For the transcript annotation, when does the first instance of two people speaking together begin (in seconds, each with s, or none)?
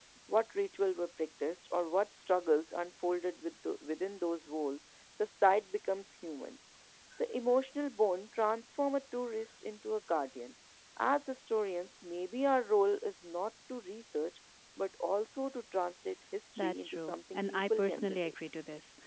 16.6 s